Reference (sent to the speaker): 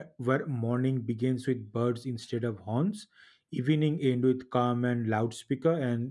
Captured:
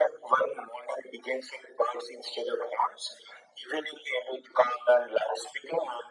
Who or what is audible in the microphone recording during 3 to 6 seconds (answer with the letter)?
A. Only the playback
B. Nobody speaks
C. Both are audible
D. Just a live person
A